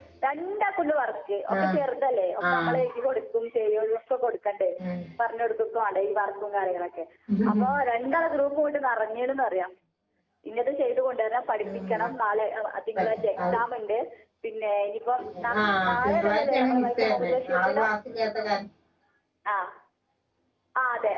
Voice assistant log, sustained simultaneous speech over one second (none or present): present